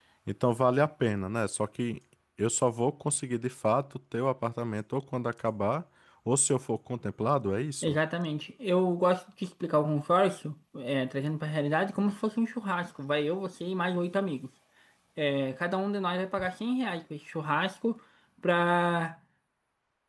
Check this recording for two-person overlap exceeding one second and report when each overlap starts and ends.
none

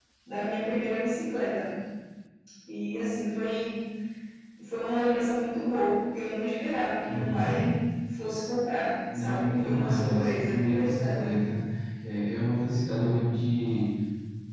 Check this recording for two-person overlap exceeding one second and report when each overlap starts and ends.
9.1-11.3

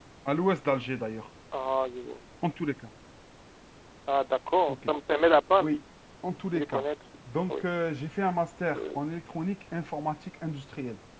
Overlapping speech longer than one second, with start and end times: none

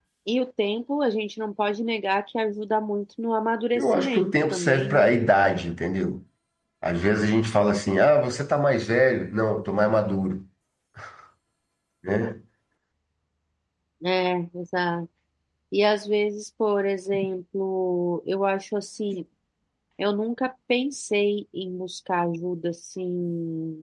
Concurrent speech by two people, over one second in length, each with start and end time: 3.8-5.1

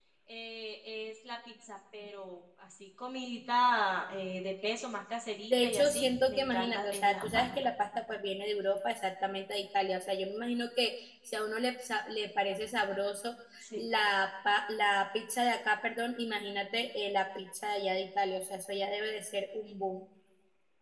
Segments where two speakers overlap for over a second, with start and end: 5.5-7.5

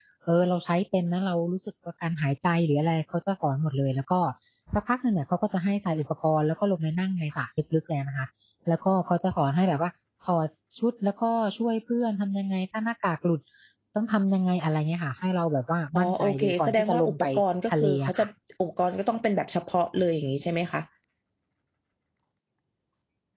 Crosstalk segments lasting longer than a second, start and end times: 16.0-17.2

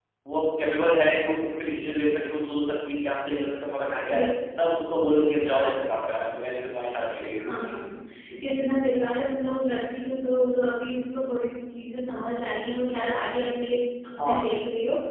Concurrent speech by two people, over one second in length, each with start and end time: none

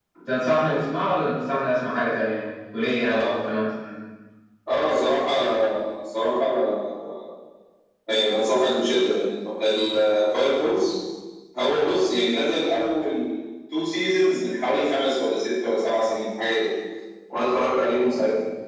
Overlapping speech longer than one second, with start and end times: none

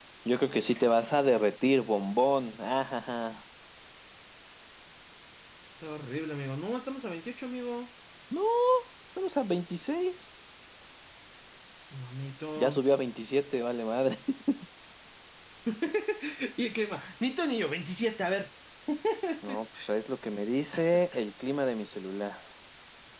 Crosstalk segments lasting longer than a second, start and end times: none

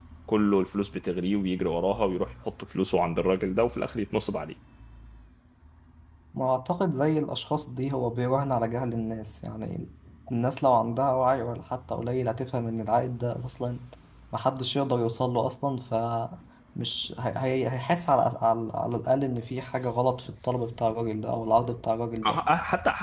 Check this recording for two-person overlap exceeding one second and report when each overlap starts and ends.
none

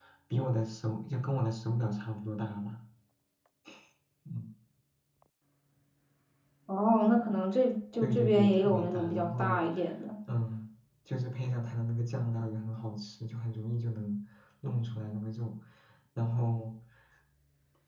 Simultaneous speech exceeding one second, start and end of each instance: 8.0-9.7

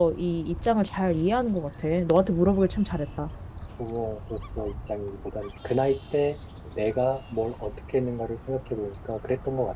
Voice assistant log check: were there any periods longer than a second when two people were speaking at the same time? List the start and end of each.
none

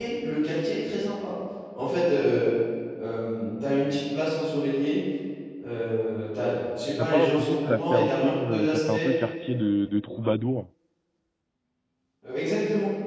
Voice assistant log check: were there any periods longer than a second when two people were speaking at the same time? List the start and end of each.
7.0-9.1

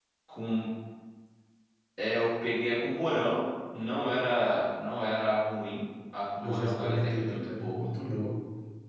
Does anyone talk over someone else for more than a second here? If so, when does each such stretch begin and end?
6.4-7.9

